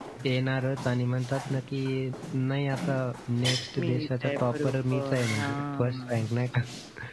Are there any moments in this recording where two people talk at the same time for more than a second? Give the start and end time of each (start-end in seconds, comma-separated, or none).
3.8-6.2